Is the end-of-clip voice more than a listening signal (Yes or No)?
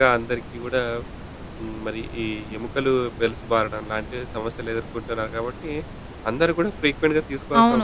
Yes